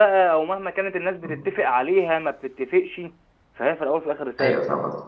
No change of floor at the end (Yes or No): No